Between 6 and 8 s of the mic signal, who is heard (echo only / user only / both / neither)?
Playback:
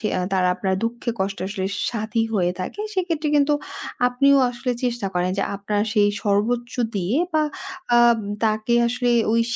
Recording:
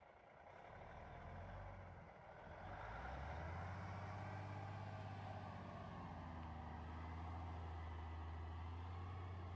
neither